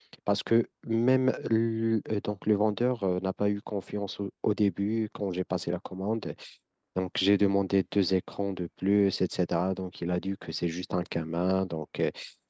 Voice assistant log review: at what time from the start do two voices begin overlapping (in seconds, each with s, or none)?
none